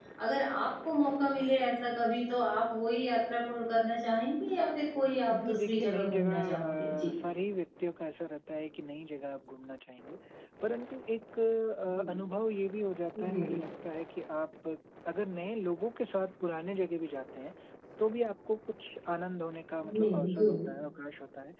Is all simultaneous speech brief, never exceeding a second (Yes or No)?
No